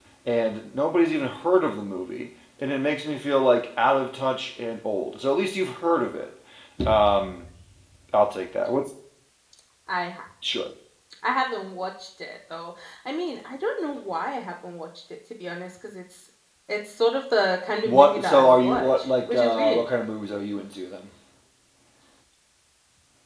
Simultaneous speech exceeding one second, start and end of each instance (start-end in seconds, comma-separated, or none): 17.8-19.8